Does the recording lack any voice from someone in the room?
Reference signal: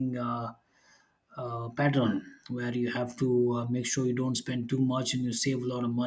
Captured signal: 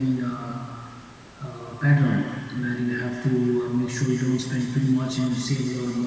Yes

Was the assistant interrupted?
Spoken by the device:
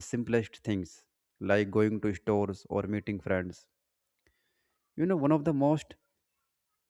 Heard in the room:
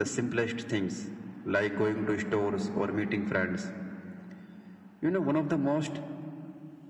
No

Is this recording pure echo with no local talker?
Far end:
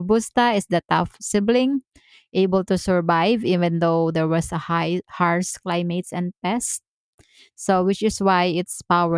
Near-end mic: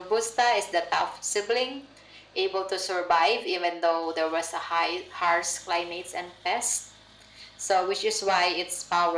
Yes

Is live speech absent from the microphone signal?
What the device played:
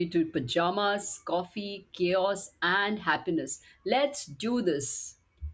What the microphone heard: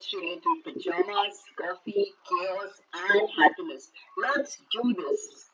Yes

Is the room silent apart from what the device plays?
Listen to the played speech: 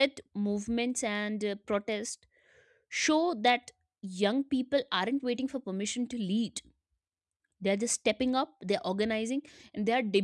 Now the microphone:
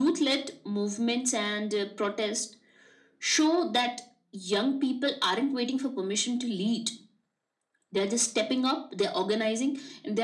Yes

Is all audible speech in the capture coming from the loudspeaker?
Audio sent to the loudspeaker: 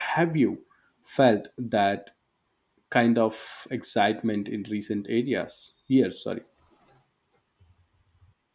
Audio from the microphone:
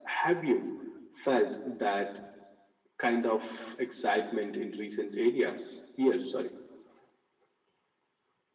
Yes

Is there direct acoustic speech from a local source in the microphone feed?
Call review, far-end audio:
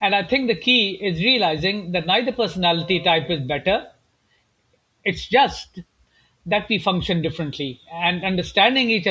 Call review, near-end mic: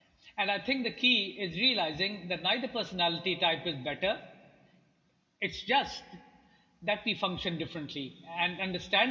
No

